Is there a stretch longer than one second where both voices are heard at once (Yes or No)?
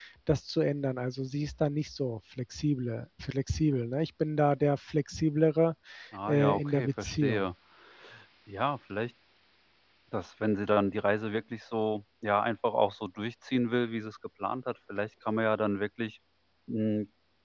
Yes